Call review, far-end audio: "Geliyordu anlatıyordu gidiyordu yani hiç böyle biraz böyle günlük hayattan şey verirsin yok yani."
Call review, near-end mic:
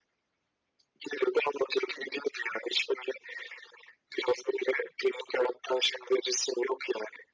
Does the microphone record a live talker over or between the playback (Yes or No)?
No